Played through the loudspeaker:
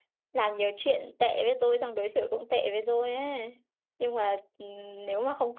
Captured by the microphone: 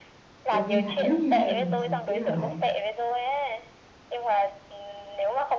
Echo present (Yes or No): Yes